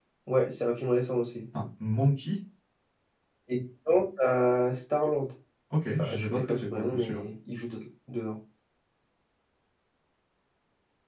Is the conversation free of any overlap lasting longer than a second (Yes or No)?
No